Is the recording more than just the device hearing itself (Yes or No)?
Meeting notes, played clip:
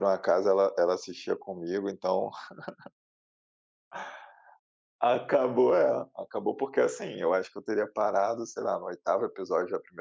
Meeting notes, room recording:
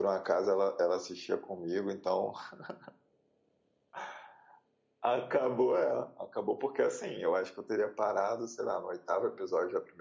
No